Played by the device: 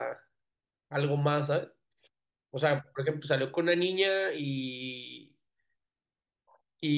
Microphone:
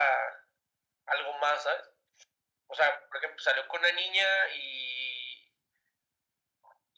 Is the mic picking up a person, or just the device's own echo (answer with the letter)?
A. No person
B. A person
A